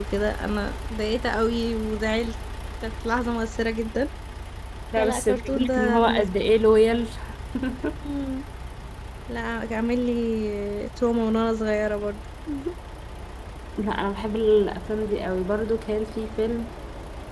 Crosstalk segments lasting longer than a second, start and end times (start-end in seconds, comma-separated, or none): 5.0-6.3